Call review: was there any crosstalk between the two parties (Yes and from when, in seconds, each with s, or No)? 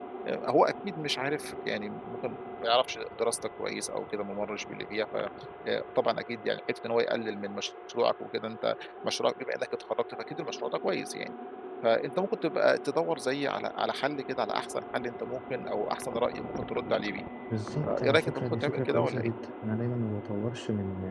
Yes, from 17.8 s